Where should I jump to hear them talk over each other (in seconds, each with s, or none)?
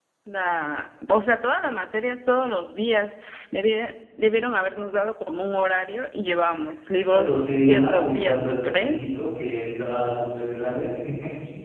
7.1 s